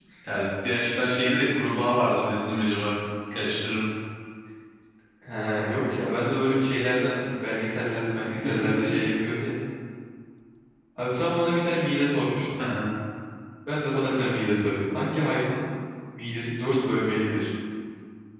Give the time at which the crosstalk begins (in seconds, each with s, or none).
none